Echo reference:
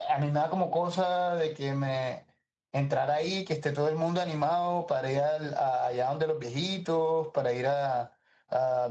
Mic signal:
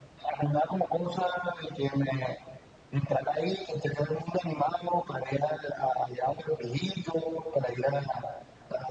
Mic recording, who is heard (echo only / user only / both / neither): echo only